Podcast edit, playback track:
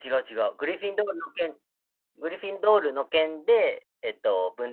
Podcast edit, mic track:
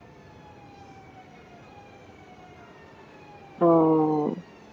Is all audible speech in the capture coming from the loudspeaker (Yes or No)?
No